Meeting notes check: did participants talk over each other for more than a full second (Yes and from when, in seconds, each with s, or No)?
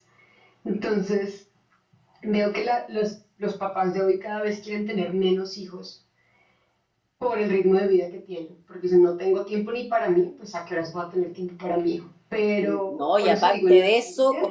Yes, from 12.6 s